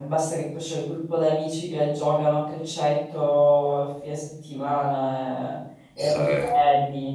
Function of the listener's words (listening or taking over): listening